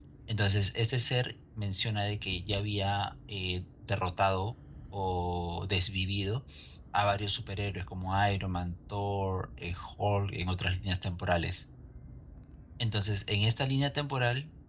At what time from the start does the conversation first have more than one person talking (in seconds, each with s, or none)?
none